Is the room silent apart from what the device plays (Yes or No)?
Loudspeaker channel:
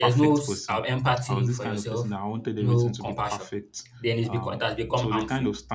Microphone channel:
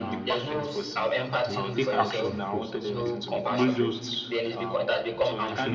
No